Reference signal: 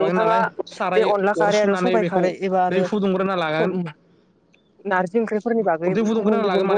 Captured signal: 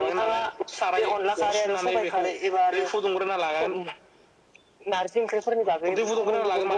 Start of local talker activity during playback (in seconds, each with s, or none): none